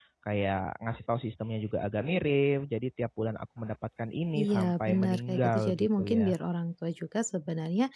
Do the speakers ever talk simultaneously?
Yes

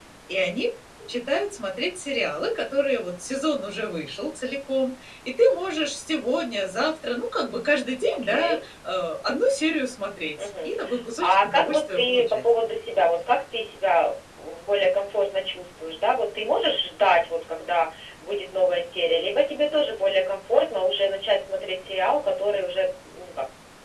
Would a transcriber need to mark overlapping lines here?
Yes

